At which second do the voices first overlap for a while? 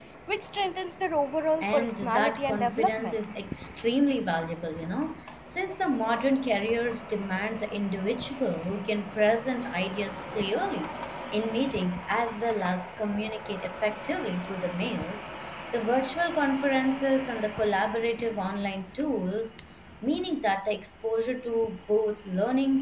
1.6 s

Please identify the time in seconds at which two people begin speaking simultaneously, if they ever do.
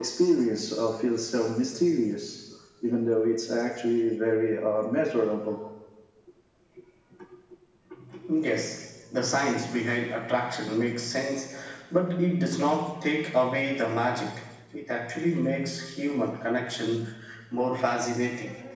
none

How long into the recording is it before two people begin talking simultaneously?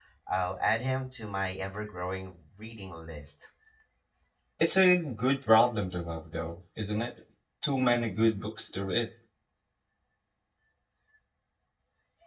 none

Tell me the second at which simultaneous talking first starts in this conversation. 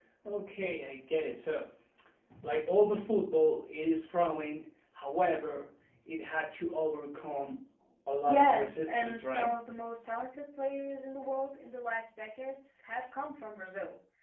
8.3 s

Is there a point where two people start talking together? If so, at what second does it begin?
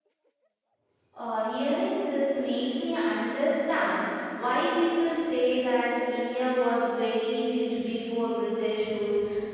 none

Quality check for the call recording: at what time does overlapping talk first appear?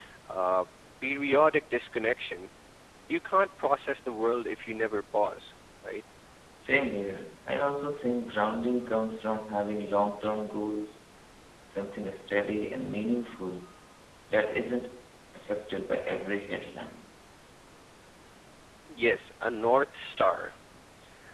none

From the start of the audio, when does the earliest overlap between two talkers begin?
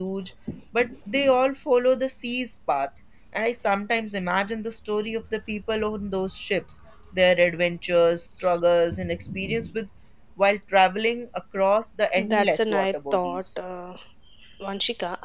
12.2 s

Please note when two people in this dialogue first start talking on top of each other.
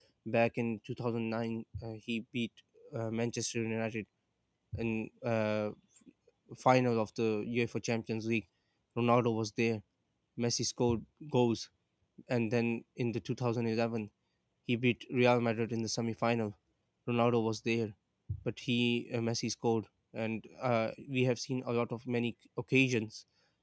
none

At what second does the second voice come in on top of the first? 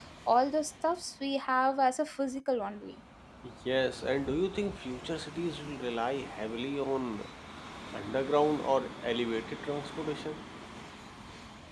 none

